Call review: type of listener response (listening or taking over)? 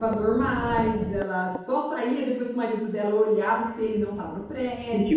taking over